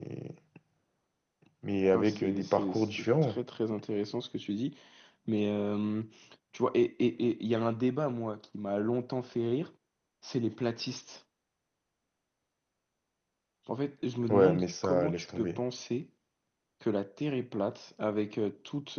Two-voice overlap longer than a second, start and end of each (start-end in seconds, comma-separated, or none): 1.9-3.4, 14.3-15.6